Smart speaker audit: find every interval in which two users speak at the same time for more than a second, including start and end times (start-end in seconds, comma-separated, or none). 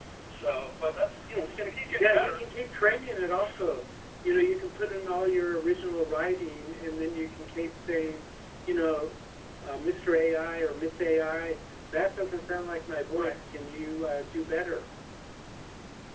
none